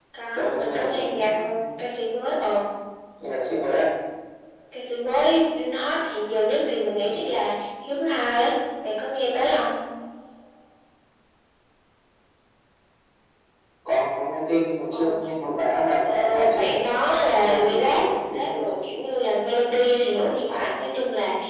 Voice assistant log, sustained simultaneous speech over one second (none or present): present